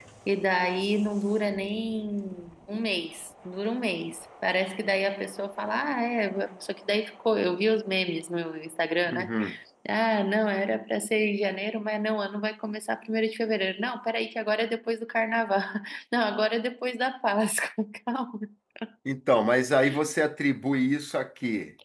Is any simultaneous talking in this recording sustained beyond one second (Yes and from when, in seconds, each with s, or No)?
No